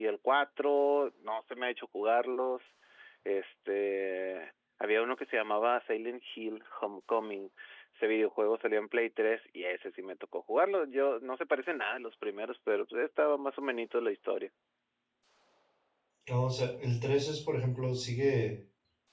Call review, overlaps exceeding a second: none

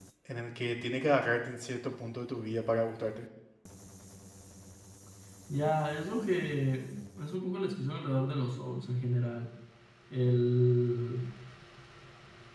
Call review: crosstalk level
none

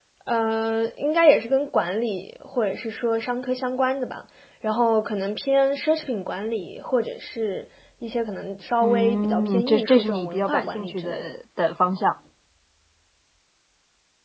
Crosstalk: present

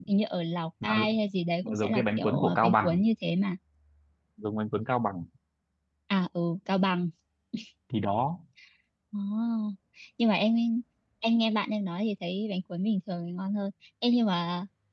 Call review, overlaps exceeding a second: present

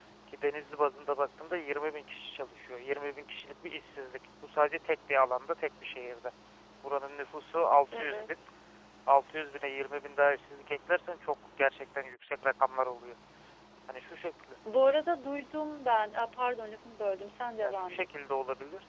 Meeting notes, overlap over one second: none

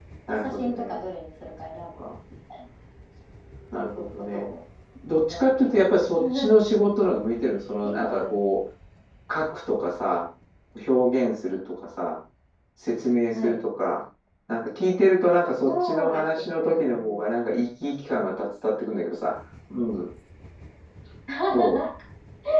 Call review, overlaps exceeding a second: present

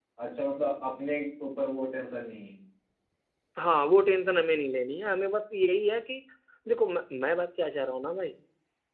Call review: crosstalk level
none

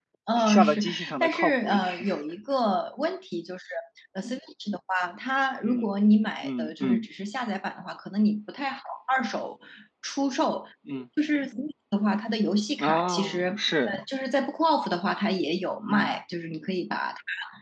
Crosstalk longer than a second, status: present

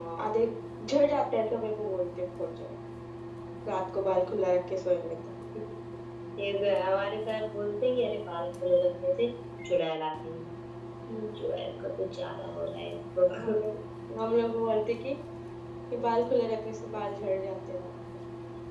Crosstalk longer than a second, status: none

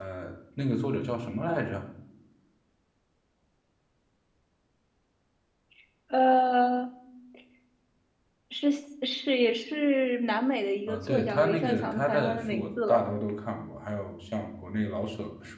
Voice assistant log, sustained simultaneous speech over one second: present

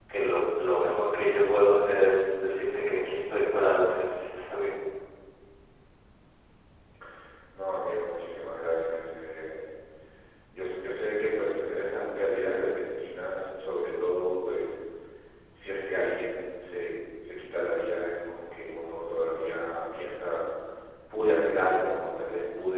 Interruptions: none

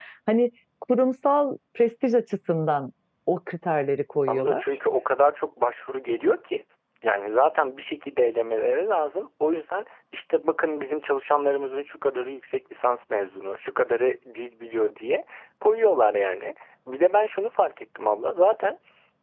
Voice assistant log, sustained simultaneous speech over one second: none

